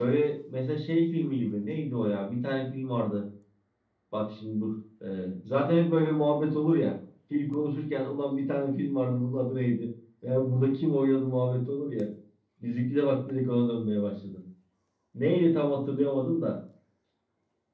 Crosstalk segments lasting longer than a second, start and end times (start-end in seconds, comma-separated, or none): none